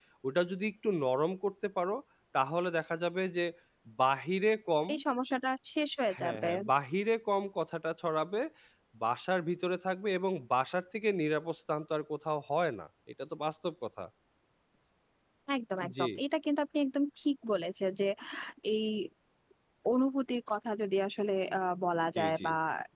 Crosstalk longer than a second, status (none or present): none